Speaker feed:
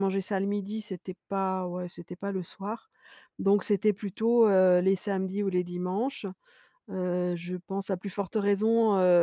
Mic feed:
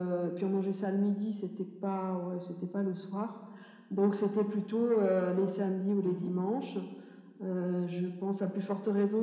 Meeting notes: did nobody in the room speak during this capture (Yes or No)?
No